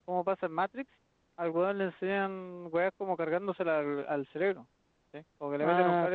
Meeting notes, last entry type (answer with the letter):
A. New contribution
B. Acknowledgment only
B